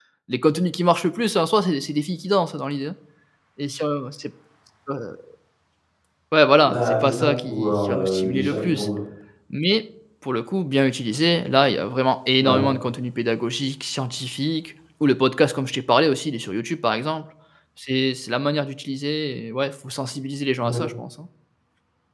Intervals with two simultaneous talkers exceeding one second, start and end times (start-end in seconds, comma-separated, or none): 6.5-8.9